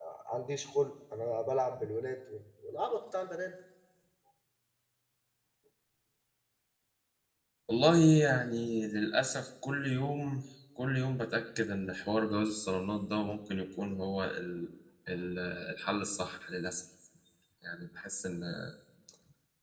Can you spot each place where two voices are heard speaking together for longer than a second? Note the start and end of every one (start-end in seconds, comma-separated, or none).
none